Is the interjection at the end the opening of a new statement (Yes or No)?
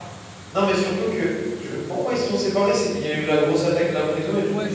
Yes